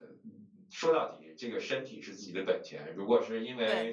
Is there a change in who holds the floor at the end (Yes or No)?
No